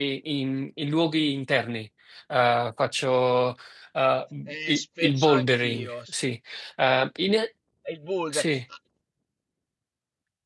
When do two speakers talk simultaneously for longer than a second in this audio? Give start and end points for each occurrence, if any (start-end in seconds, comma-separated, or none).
4.7-5.9